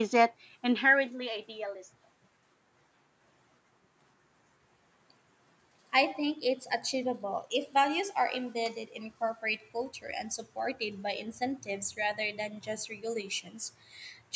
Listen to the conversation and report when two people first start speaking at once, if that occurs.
none

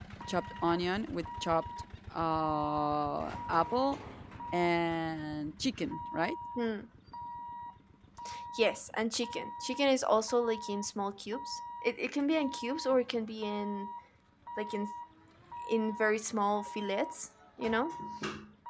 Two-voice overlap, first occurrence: none

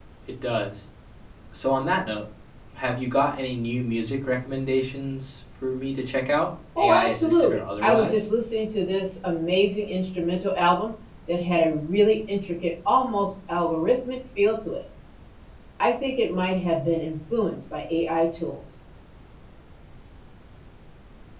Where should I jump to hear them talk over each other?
6.8 s

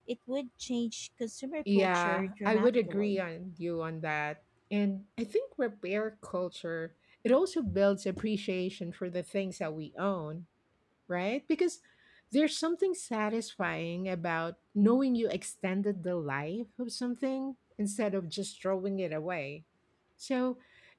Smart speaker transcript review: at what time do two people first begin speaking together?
1.7 s

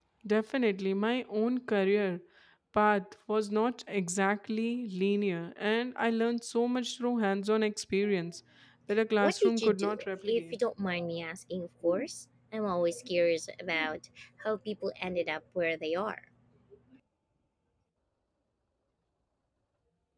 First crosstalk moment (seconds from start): 9.2 s

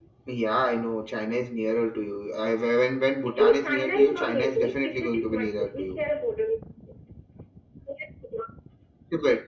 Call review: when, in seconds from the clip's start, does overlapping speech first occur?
3.3 s

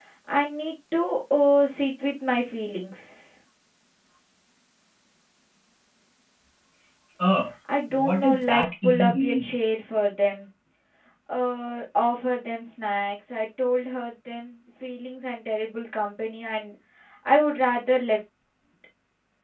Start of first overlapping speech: 7.9 s

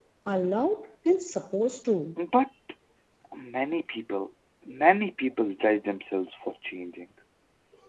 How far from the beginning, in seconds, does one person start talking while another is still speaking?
none

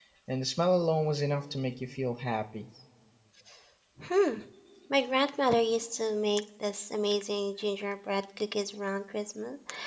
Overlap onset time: none

